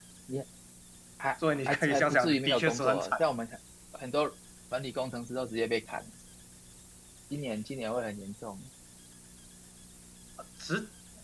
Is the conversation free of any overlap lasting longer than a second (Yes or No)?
No